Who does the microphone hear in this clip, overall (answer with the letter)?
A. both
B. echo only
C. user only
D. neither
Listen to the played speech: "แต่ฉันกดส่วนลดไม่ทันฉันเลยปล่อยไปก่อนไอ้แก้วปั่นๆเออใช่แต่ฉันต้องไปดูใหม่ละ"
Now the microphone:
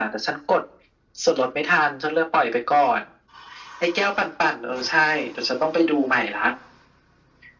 B